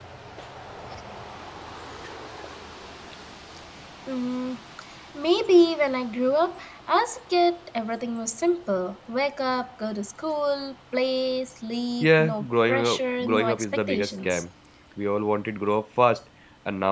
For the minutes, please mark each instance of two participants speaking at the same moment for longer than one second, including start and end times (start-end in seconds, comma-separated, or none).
12.0-14.4